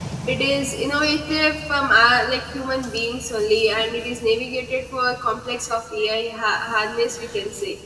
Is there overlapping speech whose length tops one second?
No

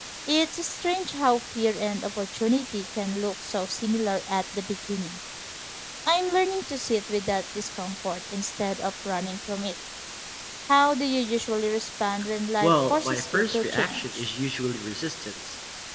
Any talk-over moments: Yes, from 12.6 s

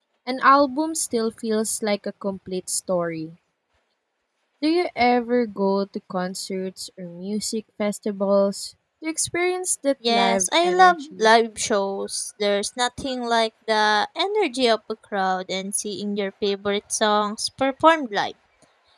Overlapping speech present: Yes, from 10.0 s

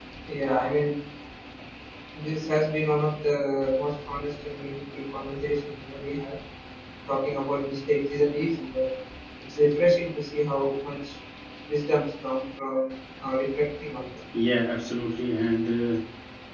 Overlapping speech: No

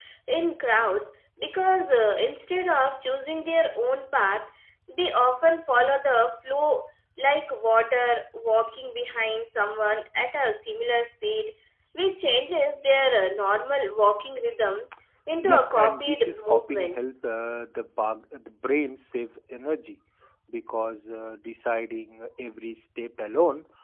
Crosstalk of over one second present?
Yes, from 15.4 s

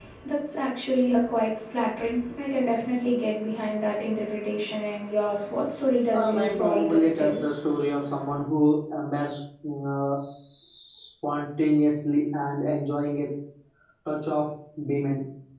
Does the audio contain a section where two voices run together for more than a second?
Yes, from 6.1 s

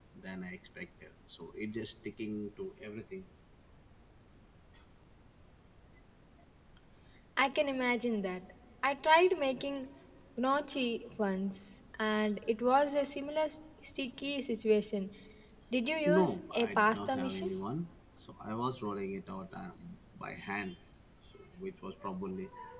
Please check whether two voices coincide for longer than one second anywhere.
Yes, from 16.0 s

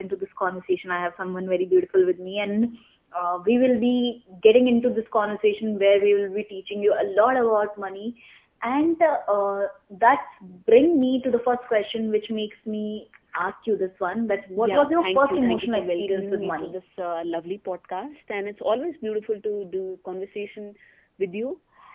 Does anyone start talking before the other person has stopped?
Yes, from 14.6 s

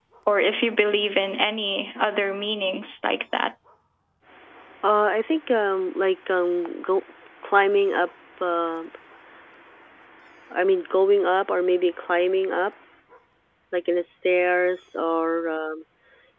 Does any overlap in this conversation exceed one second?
No

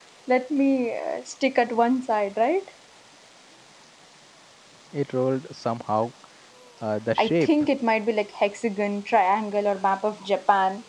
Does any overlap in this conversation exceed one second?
No

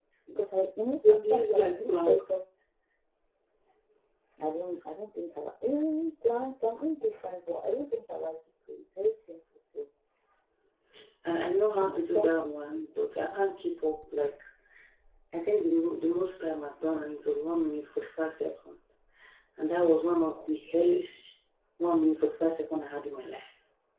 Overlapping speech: Yes, from 1.1 s

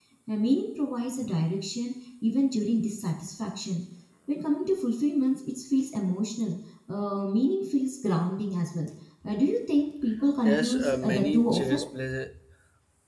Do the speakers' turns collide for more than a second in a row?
Yes, from 10.4 s

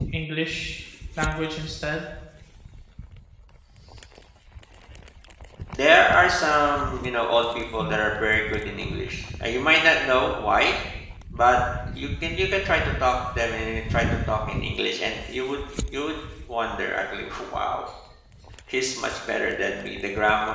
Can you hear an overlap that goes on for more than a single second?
No

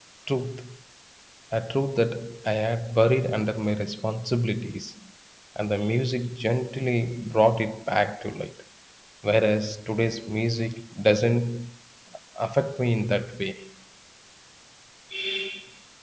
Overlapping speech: No

